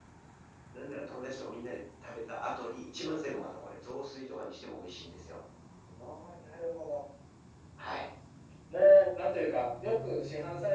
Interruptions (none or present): none